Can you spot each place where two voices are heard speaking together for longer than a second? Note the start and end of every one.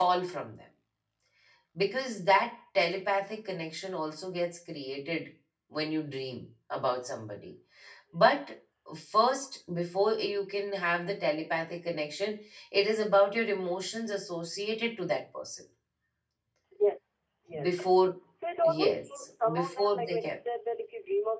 18.6-20.3

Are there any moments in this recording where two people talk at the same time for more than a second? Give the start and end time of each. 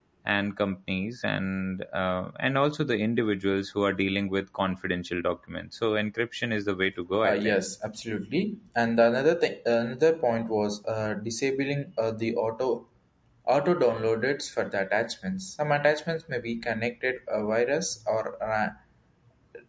none

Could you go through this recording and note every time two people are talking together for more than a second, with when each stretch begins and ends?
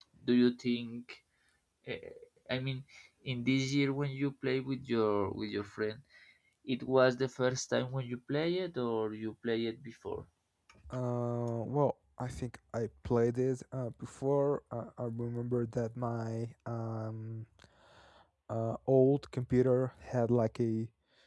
none

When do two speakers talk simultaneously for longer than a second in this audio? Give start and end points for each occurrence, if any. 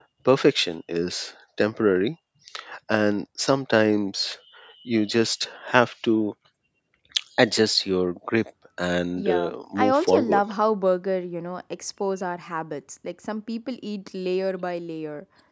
9.2-10.4

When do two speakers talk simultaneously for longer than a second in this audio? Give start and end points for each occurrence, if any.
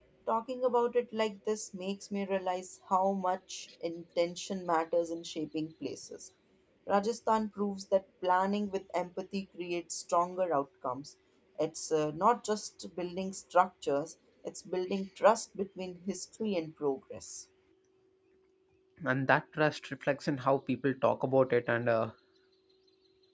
none

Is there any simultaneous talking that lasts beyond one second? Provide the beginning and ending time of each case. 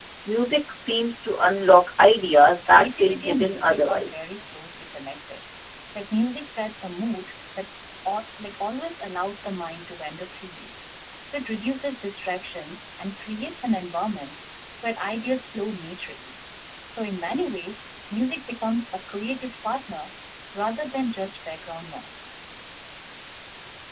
2.7-4.2

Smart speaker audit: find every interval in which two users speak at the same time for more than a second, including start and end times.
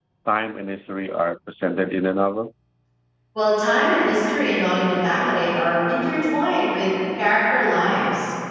none

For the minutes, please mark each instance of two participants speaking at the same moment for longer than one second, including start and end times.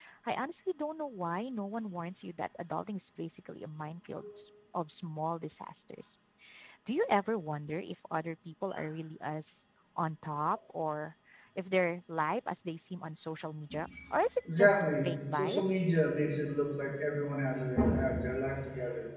14.6-15.9

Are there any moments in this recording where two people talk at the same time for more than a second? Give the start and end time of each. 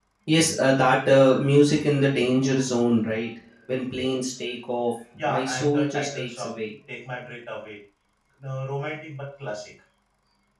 5.2-6.5

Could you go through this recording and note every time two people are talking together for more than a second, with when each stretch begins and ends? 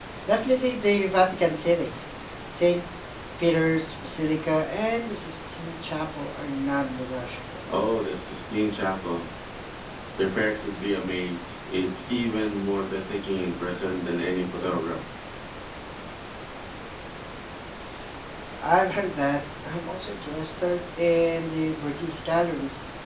none

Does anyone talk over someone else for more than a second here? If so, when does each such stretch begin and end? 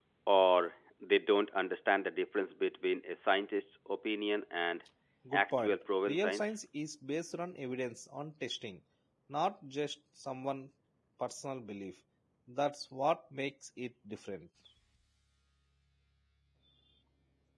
5.3-6.5

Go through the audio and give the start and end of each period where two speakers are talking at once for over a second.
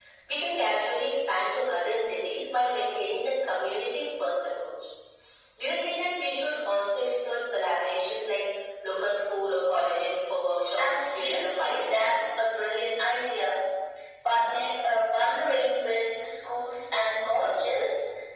10.8-12.2

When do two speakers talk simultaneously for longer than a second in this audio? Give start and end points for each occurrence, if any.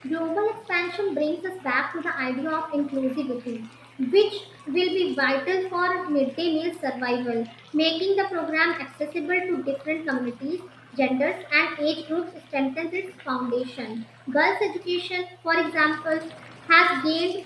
none

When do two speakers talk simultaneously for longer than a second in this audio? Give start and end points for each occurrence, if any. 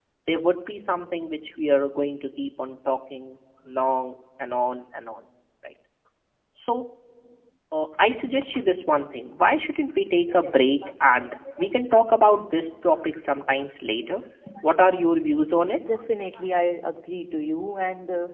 none

